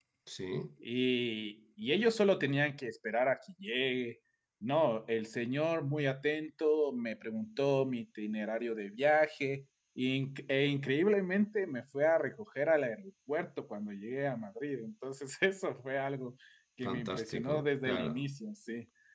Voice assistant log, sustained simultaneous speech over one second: present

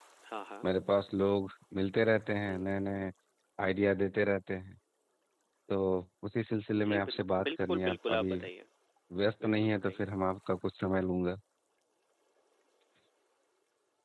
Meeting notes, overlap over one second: present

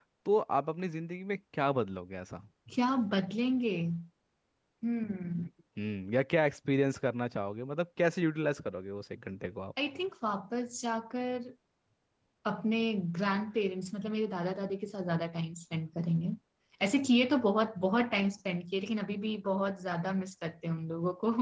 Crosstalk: none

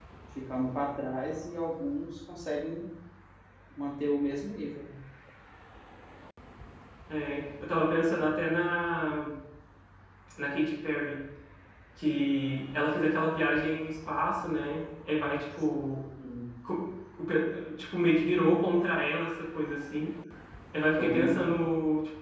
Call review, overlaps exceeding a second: none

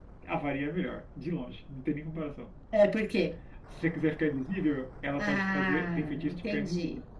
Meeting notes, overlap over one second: present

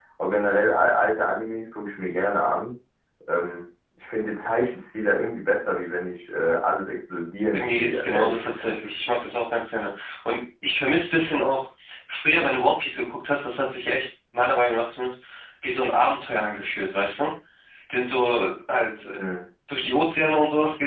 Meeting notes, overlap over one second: present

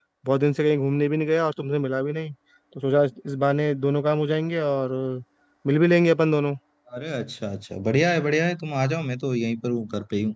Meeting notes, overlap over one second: none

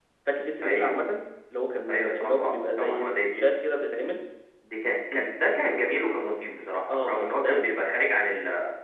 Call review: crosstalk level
present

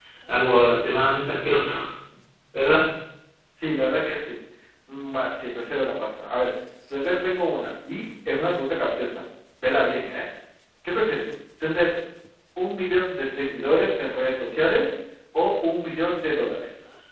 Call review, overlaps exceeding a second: none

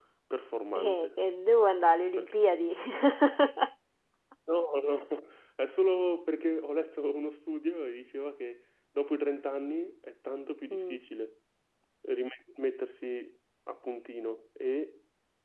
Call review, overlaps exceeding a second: none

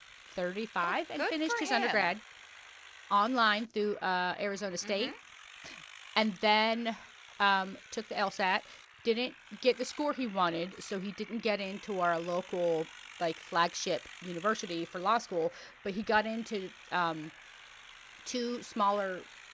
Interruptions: present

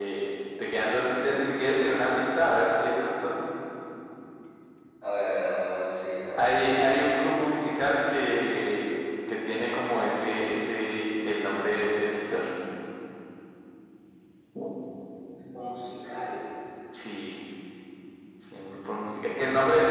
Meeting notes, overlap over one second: none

